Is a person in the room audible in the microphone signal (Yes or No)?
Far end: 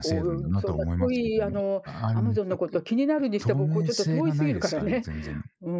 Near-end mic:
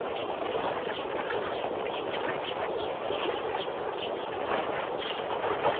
No